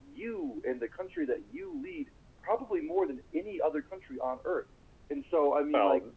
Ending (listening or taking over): taking over